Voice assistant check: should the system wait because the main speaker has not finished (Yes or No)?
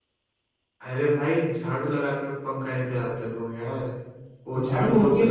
No